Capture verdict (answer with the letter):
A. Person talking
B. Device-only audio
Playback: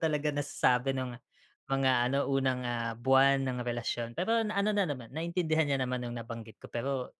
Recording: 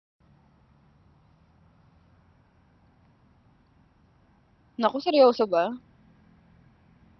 A